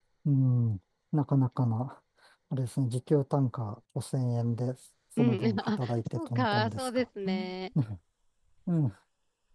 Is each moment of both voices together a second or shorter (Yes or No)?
No